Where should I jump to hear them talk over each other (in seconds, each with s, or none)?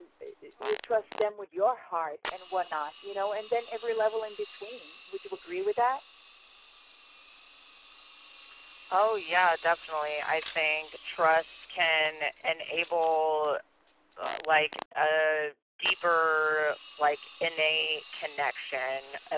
none